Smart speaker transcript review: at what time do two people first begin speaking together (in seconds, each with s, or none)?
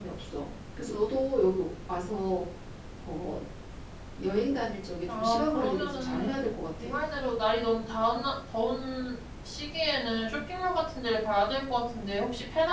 5.1 s